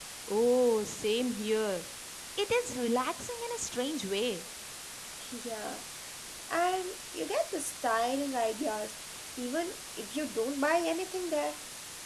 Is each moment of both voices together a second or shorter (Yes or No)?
Yes